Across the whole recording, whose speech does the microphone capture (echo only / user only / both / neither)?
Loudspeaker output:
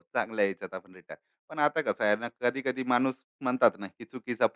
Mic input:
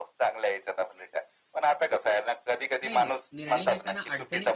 both